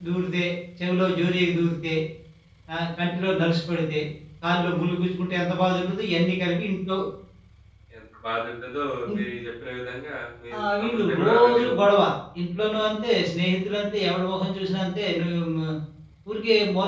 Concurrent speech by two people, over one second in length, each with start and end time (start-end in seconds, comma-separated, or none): 10.6-11.9